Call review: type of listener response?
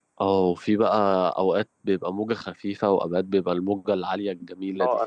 taking over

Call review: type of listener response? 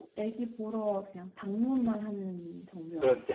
taking over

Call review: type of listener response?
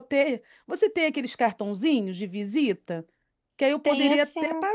listening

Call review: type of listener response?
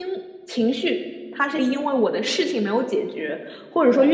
listening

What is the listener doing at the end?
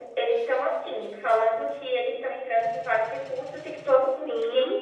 listening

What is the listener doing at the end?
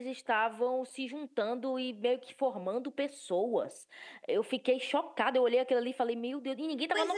taking over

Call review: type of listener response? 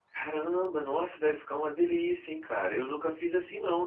listening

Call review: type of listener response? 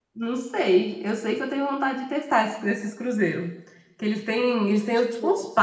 listening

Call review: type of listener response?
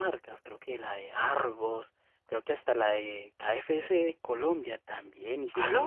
listening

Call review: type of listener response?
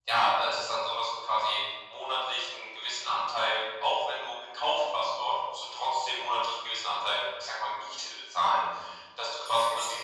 listening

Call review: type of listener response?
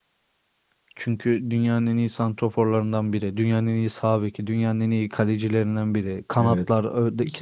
taking over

